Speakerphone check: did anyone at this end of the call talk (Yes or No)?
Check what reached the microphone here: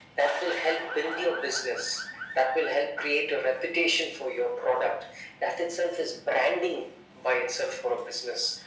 No